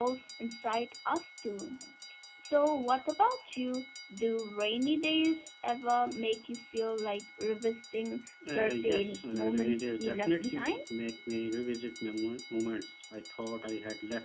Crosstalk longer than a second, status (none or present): present